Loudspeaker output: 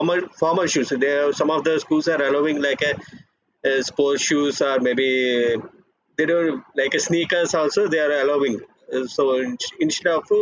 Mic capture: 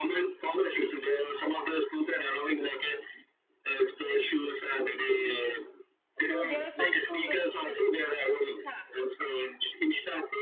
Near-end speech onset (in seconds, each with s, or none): 6.2 s